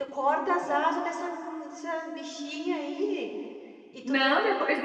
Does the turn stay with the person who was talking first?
No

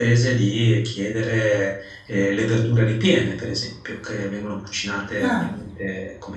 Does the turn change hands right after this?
No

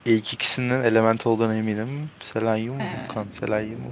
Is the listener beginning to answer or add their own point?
No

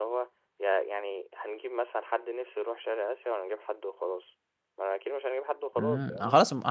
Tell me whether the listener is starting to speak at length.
Yes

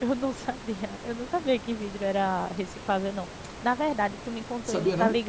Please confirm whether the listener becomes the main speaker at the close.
No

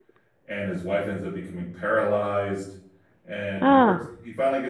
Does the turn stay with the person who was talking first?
Yes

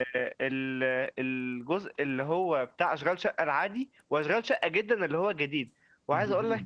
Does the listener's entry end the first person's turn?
No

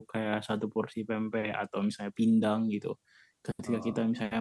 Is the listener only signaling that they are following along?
Yes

